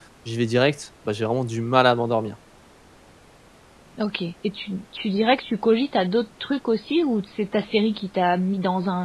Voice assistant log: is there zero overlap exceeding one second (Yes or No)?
Yes